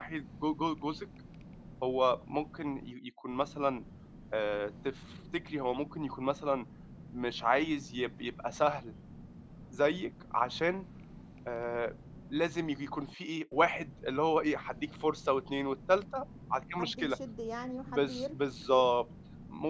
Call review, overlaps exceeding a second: none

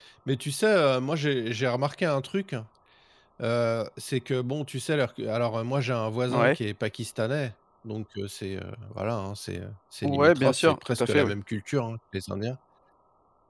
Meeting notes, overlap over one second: present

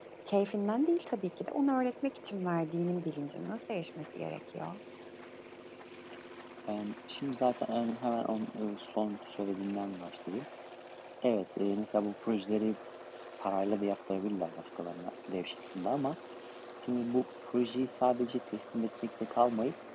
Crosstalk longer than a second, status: none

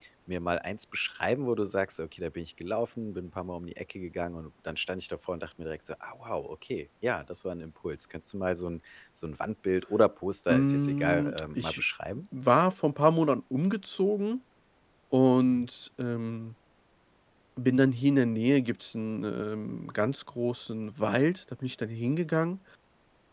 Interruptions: present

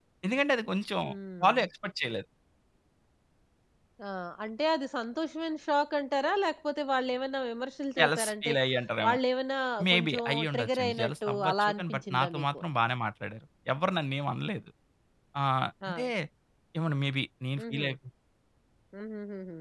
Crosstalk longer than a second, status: present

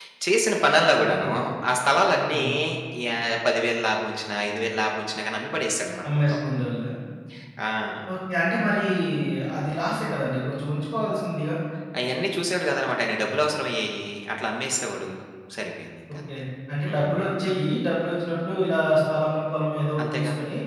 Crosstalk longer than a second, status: none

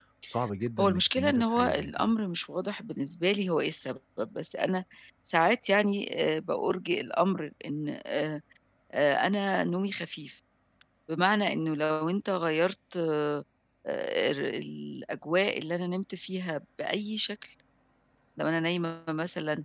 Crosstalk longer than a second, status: present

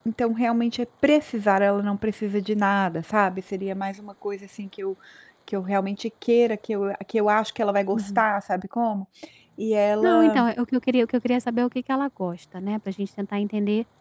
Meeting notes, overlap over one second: none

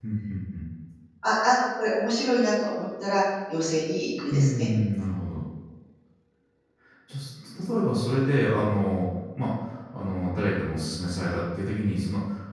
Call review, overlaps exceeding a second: none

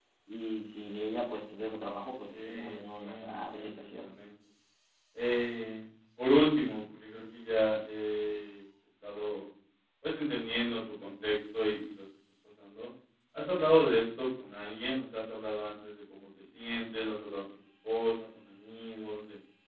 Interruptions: present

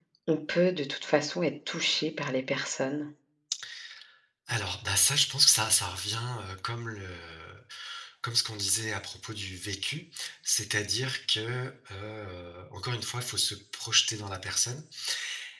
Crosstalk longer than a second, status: none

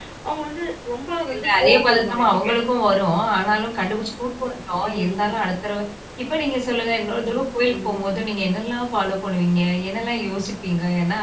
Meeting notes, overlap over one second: present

